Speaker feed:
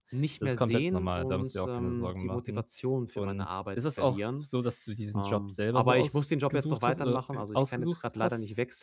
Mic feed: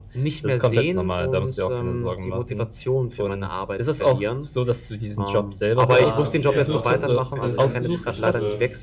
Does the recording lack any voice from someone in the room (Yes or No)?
No